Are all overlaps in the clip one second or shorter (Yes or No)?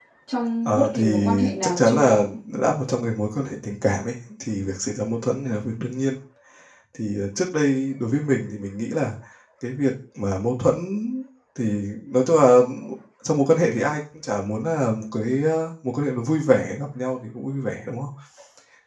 No